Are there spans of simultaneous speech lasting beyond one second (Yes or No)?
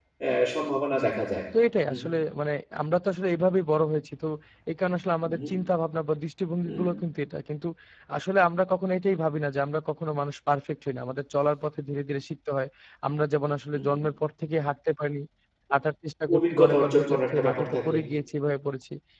Yes